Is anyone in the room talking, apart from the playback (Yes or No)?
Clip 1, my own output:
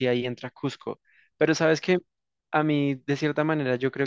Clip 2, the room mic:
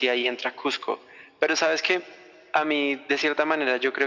No